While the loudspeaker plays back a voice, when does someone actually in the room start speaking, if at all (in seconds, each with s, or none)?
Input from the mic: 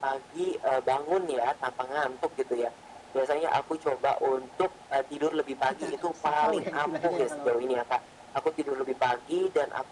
5.6 s